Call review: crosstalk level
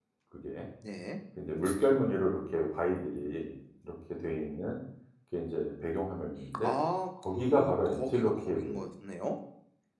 present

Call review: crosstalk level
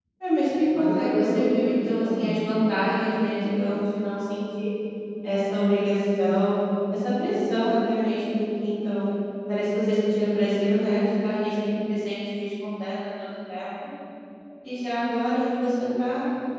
present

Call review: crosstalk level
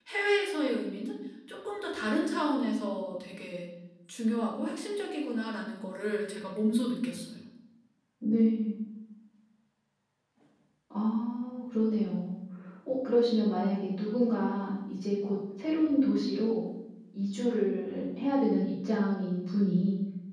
none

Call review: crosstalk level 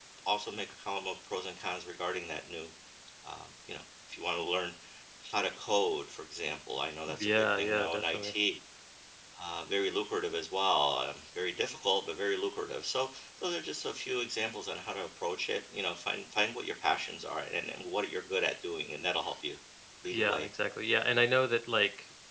present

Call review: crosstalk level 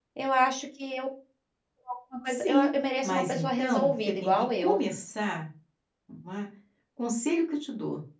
present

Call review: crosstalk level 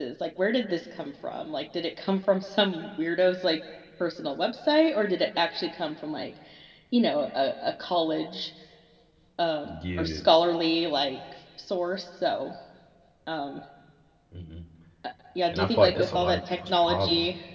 present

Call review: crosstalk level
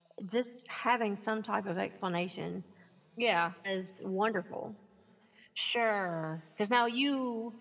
none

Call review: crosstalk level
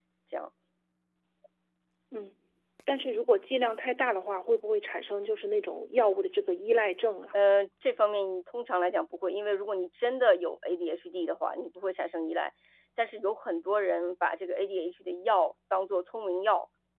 none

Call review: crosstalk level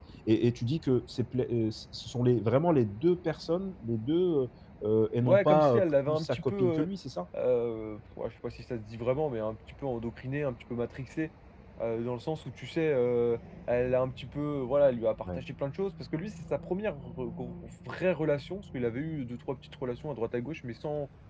present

